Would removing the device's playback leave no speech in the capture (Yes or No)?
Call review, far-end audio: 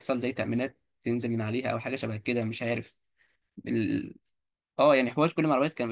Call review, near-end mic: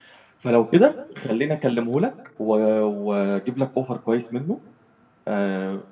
No